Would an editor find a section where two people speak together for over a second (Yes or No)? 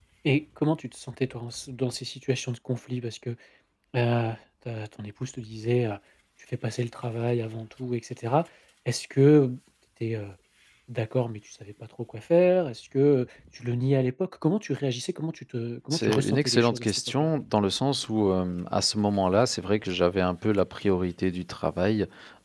Yes